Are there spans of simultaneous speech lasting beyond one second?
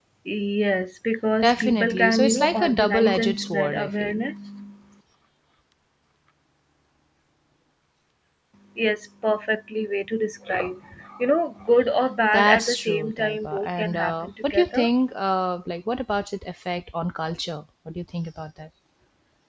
Yes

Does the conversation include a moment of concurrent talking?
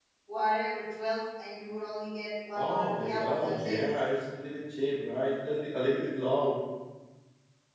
Yes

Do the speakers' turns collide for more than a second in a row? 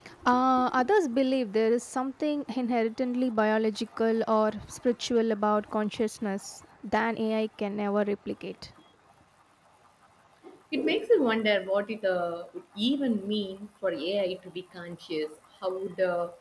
No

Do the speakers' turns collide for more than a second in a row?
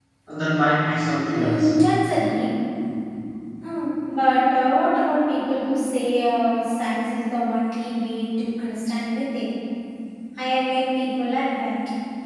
No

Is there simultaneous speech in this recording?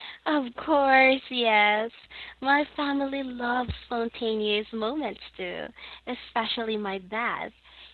No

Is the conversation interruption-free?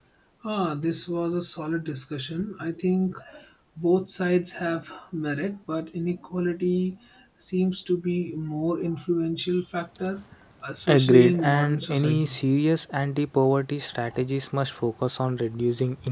No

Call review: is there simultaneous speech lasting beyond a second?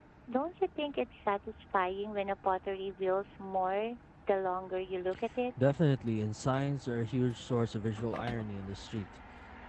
No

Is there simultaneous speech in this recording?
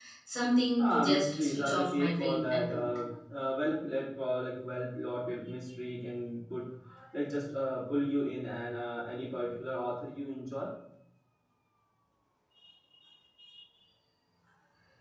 Yes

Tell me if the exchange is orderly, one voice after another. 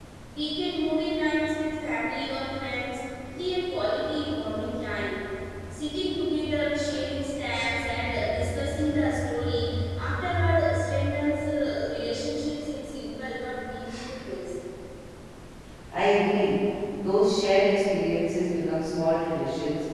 Yes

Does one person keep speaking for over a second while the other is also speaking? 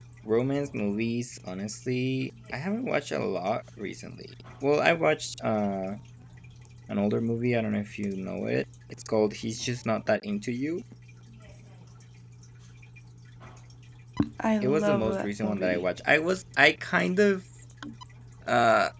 Yes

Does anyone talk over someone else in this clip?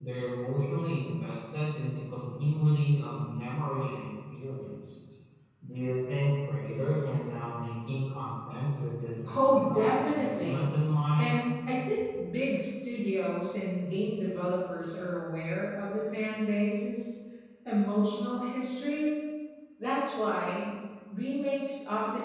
Yes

